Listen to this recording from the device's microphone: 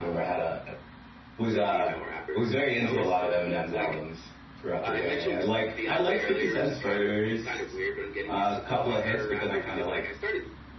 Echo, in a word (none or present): present